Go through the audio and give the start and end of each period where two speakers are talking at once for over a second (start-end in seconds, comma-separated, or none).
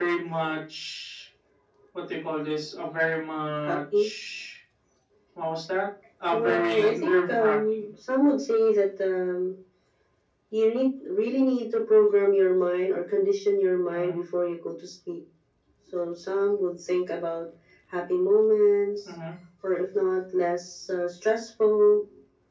6.3-7.9